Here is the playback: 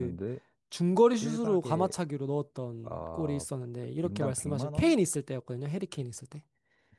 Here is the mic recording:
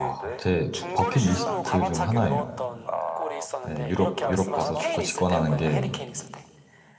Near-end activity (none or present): present